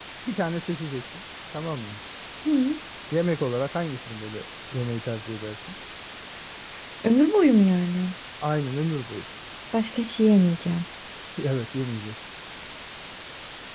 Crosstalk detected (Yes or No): No